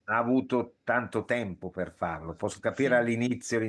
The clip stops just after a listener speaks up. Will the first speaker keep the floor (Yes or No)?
Yes